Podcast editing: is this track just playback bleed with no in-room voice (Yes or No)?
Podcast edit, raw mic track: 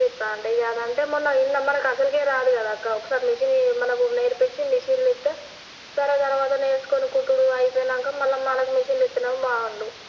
Yes